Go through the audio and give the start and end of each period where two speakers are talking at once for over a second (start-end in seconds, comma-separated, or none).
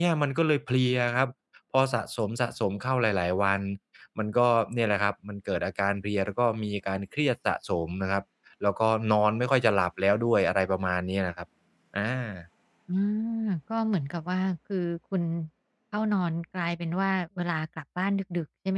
none